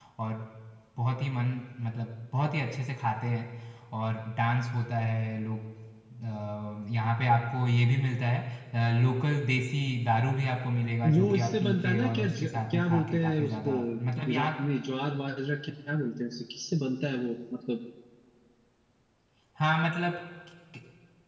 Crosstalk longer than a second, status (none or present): present